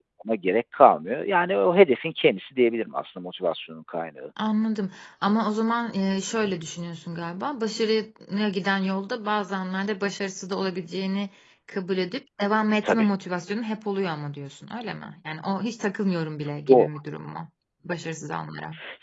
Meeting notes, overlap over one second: none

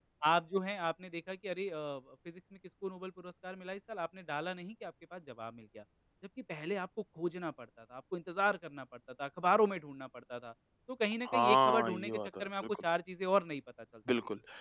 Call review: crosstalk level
present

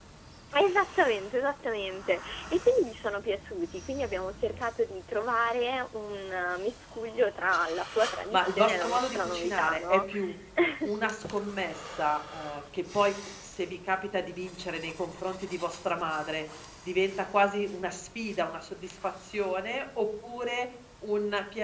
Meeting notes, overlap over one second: present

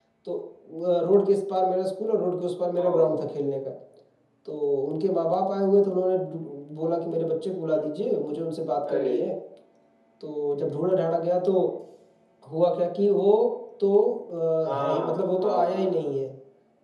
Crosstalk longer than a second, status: present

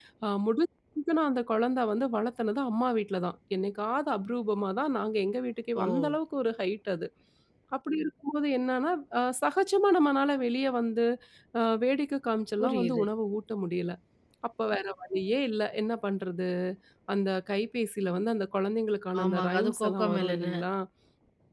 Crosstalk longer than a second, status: present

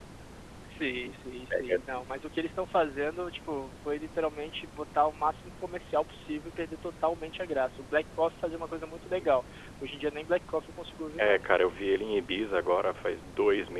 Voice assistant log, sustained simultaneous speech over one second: none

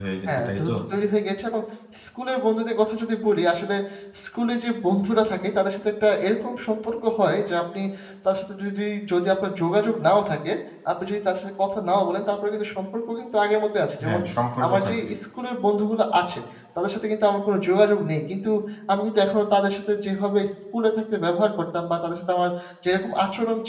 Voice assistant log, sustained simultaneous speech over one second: none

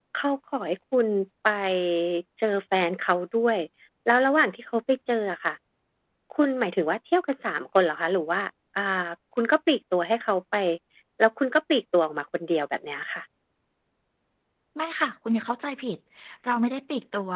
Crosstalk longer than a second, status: none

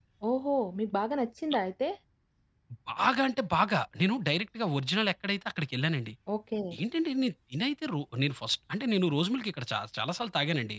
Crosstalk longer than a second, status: none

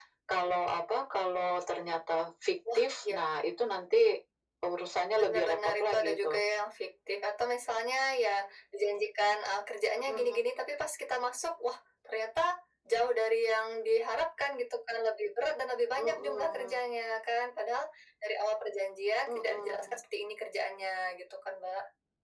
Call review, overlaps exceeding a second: present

